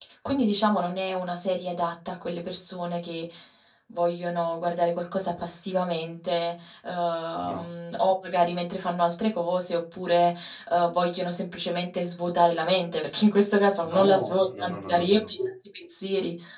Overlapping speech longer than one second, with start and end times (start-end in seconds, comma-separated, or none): 13.8-15.3